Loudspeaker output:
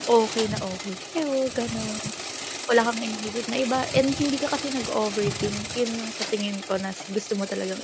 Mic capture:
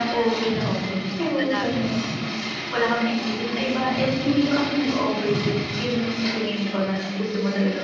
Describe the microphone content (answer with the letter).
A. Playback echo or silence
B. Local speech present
B